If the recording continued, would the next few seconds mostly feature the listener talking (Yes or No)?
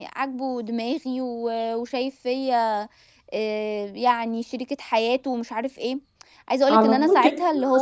Yes